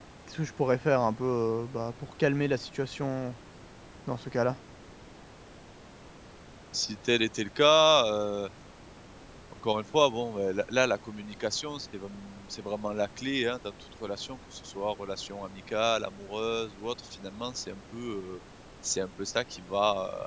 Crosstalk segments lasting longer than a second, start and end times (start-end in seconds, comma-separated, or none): none